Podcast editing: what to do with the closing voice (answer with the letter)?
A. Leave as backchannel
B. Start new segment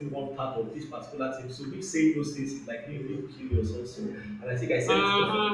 A